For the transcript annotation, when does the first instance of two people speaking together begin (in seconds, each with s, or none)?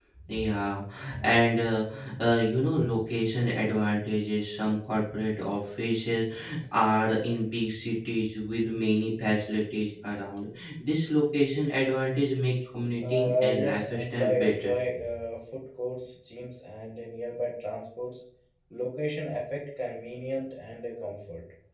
13.0 s